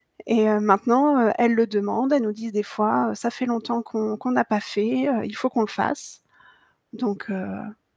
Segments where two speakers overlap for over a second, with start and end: none

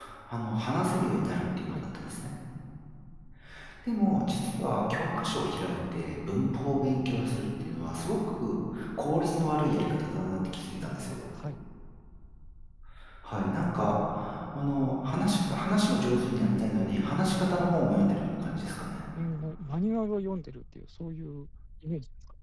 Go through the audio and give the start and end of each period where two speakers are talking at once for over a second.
none

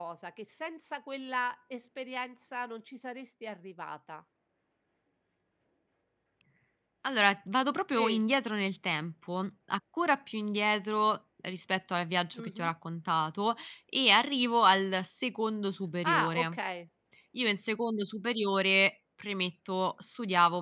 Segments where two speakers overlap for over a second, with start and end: none

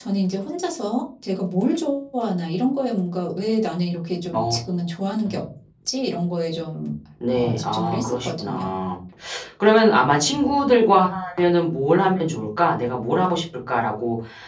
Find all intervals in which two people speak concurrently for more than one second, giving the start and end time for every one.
7.3-8.7

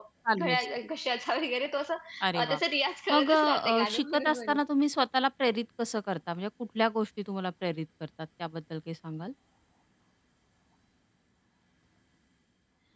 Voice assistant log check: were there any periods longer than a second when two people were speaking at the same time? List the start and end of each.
3.1-4.6

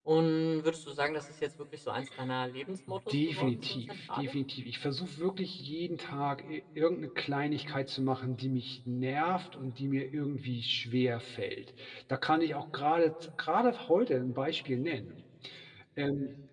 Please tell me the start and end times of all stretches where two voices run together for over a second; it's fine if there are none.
3.1-4.3

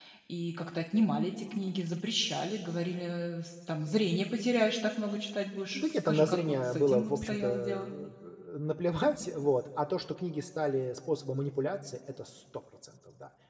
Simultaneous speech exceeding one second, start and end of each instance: 5.7-7.9

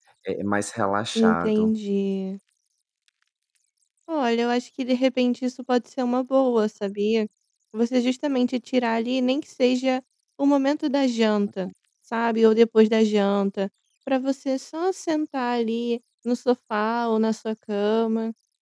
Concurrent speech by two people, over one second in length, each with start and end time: none

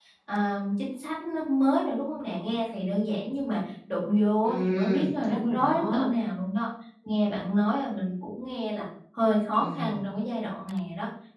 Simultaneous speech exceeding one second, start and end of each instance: 4.4-6.1

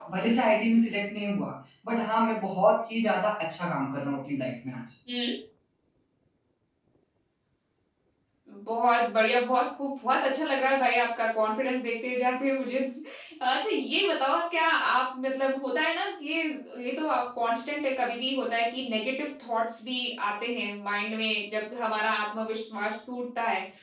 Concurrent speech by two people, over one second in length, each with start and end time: none

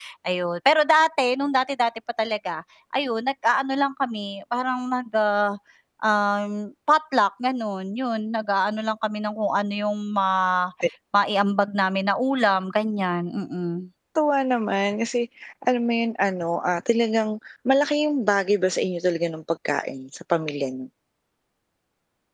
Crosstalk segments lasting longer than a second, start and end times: none

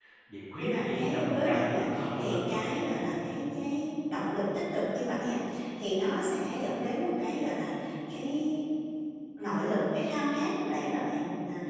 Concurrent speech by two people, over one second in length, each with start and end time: 0.6-2.6

